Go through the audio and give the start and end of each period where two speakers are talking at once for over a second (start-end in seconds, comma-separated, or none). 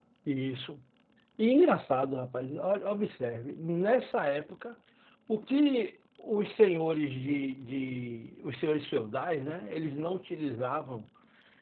none